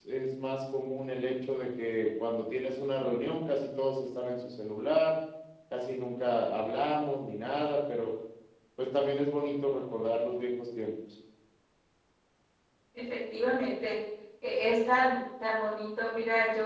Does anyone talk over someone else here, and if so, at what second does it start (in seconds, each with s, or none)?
none